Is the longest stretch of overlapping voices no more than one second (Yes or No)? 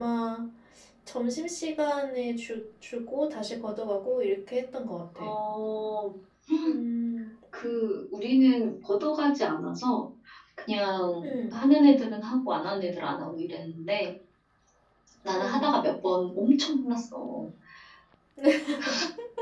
Yes